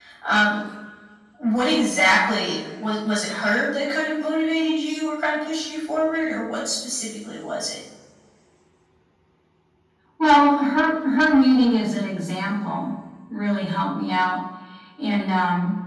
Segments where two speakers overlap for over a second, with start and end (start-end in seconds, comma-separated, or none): none